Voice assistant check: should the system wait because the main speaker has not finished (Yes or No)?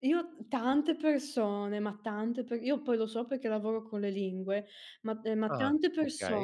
Yes